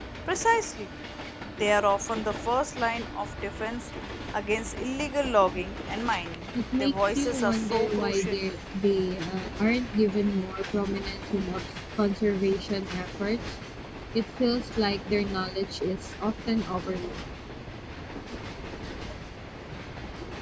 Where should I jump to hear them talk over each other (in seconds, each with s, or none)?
6.5 s